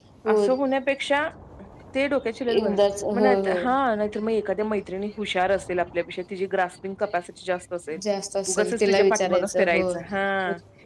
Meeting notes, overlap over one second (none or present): present